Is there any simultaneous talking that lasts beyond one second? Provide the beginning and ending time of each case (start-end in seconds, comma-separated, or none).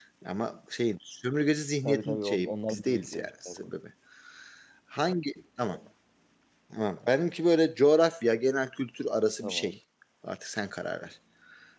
1.8-3.7